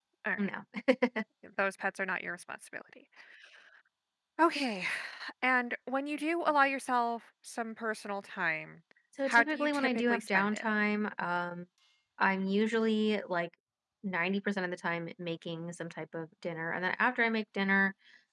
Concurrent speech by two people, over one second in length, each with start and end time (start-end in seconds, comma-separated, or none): 9.3-10.6